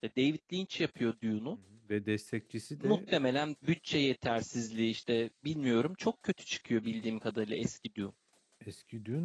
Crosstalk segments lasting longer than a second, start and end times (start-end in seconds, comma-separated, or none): none